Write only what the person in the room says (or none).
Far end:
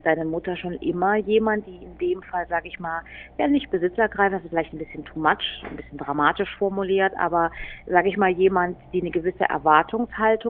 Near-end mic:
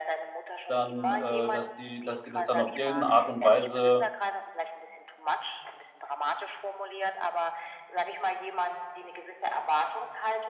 dann, äh, dass die dass die das dann auf irgendeine Art und Weise,